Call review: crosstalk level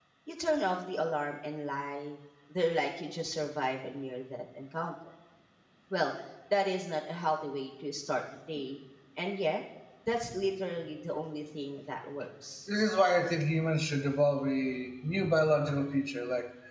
none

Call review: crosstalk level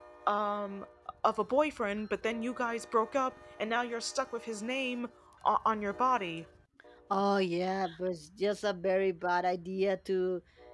none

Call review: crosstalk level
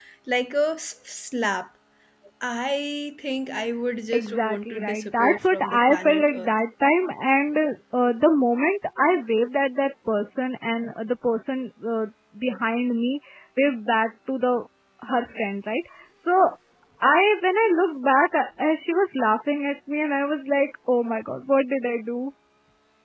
present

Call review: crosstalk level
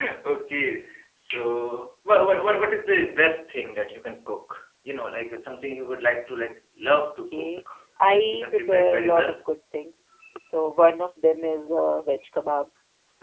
present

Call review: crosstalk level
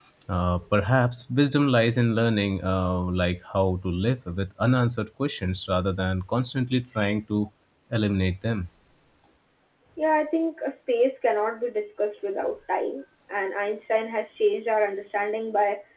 none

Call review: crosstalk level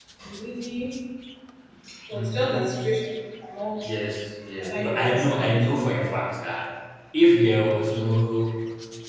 present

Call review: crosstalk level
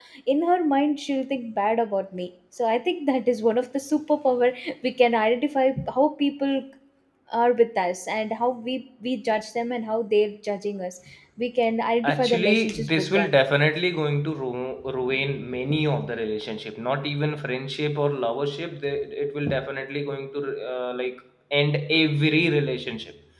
present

